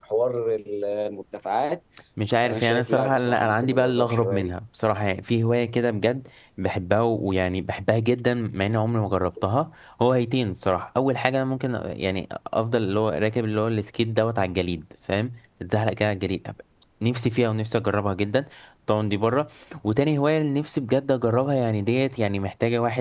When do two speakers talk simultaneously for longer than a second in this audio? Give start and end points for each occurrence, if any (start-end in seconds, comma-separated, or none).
2.4-4.5